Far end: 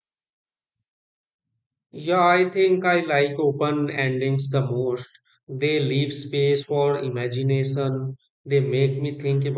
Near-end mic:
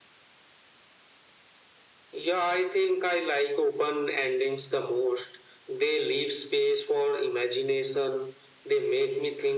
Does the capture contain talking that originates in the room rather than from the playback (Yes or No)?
No